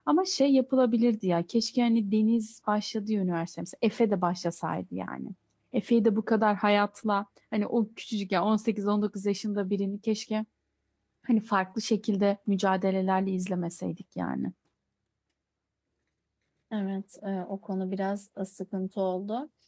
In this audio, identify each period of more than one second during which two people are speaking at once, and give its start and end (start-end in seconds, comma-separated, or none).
none